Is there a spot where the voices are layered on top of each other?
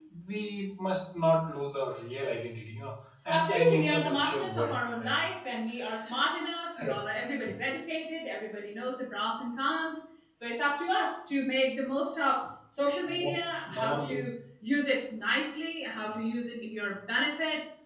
Yes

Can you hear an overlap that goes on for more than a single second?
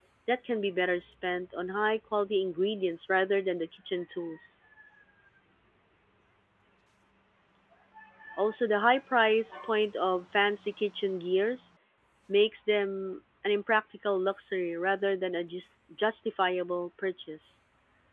No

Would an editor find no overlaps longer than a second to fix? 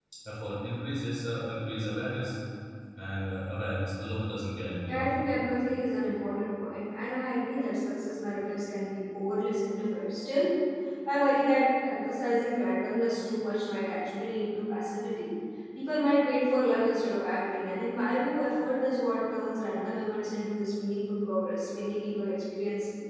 Yes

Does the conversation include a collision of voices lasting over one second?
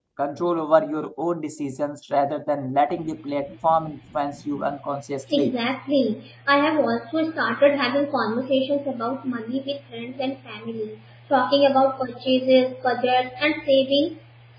No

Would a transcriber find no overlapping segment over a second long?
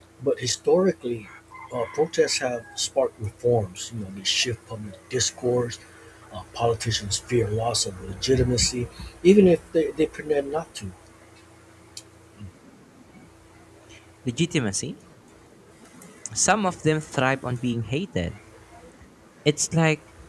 Yes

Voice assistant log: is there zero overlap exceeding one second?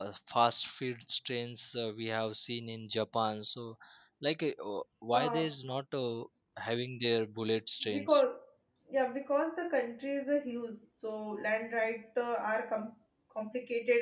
Yes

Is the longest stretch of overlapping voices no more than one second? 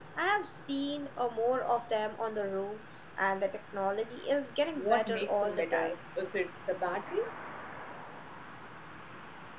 No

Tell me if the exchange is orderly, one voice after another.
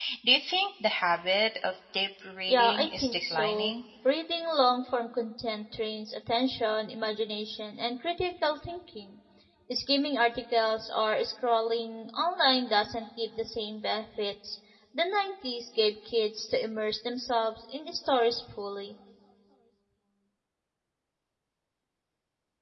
No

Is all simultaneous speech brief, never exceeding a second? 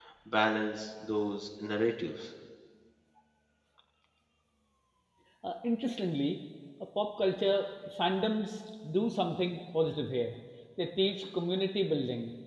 Yes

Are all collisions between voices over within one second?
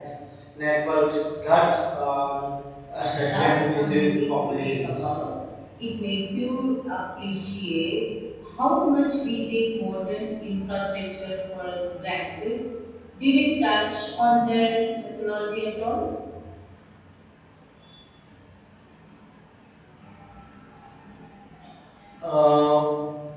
No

